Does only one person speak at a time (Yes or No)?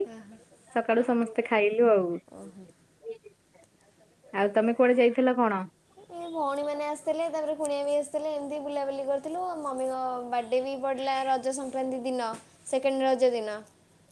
Yes